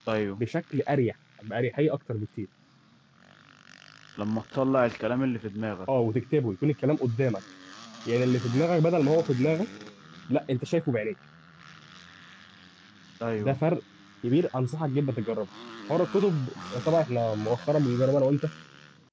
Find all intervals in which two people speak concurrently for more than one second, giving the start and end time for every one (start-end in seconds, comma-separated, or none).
none